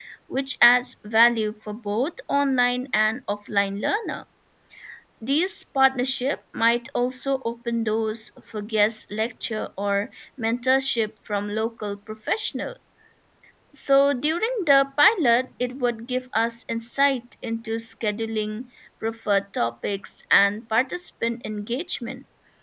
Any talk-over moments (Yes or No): No